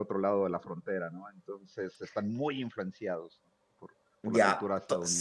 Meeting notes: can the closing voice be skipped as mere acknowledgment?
No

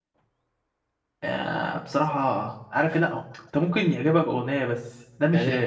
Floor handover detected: Yes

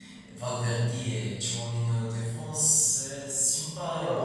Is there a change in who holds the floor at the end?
Yes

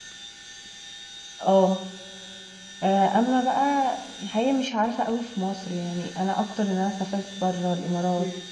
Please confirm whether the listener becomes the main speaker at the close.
No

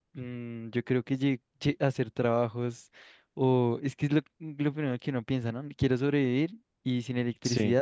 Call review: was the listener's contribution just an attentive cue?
Yes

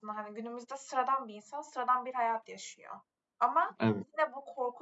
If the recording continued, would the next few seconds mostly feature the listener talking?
No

